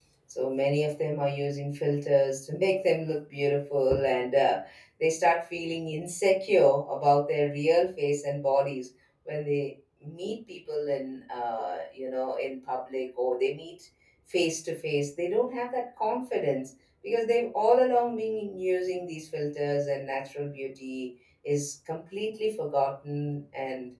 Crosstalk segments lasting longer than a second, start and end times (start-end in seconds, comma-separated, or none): none